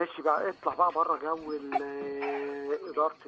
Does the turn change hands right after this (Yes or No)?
No